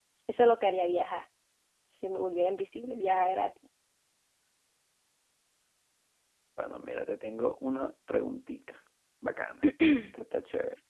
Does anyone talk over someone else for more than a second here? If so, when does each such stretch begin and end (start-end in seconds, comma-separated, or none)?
none